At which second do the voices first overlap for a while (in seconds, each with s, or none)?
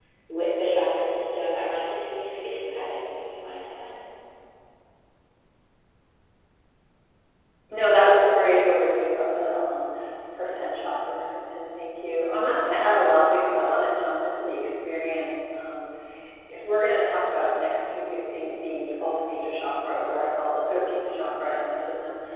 none